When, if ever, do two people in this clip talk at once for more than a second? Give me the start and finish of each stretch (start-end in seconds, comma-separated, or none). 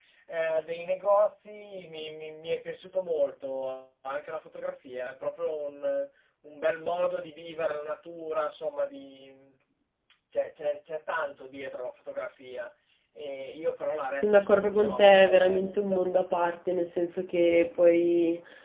14.1-16.0